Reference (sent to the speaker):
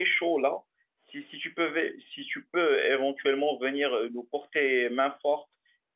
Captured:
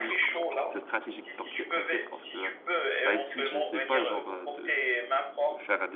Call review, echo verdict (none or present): present